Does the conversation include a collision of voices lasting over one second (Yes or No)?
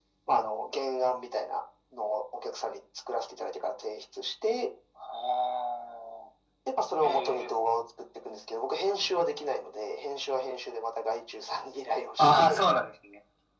No